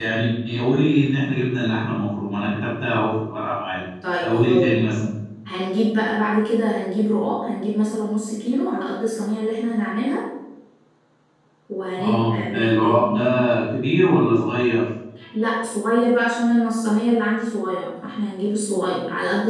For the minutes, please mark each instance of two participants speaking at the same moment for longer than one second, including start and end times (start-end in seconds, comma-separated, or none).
12.0-13.2